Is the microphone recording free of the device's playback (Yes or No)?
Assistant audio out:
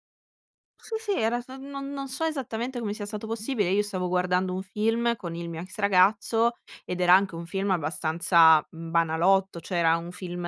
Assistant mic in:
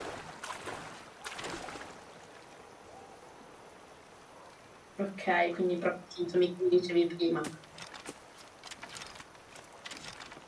Yes